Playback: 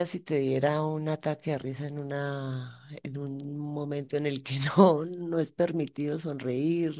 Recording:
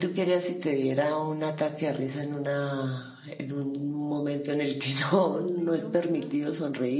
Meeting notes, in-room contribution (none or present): present